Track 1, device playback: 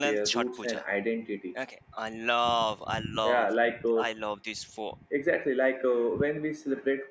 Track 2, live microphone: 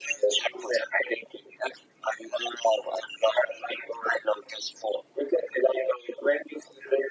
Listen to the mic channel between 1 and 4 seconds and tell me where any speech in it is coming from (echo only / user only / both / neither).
echo only